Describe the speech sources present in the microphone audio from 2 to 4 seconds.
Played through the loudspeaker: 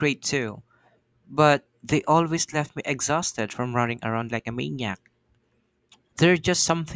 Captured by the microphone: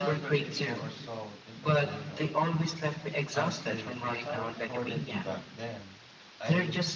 both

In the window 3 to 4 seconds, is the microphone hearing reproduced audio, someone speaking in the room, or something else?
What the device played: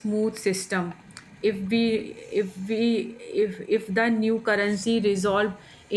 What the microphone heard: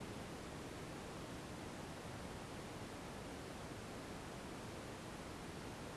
neither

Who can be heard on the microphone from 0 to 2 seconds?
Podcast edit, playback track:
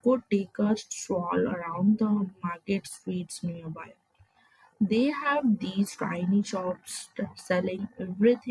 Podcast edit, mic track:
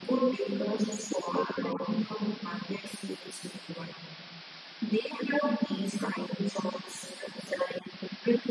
echo only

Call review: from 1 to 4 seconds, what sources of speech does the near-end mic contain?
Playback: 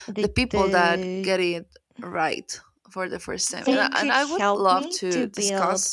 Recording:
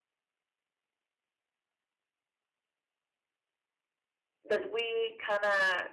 neither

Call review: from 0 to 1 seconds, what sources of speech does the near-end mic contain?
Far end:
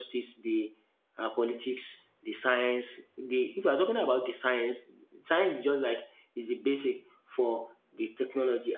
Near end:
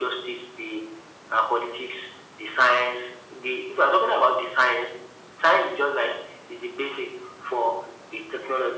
echo only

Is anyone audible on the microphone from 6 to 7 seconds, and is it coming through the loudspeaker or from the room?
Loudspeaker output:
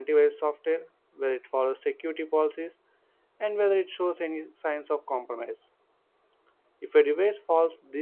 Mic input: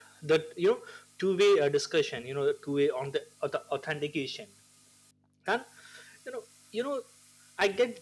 user only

